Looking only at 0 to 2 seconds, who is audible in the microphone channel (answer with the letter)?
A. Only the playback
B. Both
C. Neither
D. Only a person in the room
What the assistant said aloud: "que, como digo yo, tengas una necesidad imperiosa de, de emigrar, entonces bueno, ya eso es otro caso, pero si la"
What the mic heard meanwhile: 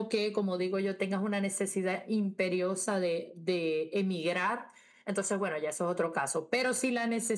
A